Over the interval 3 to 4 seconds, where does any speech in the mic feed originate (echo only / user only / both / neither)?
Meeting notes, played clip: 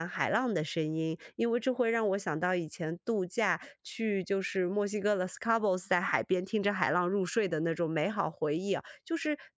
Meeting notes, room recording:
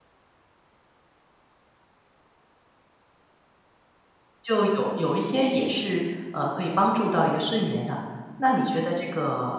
neither